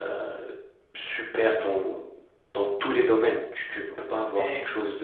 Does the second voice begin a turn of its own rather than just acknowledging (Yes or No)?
Yes